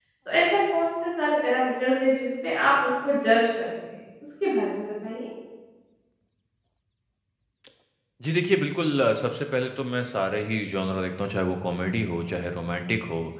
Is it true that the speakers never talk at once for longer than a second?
Yes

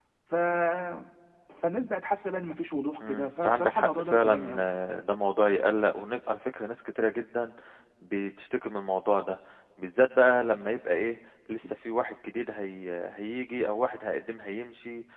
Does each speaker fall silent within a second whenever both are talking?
No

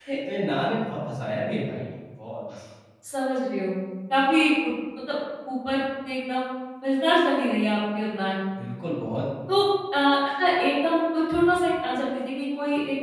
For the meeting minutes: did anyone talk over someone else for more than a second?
No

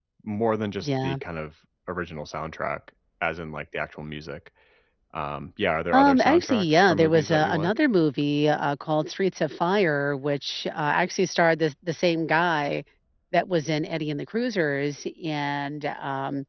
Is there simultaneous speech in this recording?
Yes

